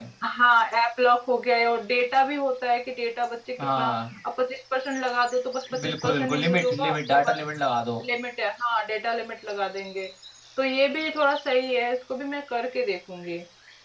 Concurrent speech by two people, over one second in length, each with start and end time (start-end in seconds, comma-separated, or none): 5.8-7.4